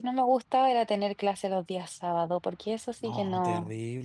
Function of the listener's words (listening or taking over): taking over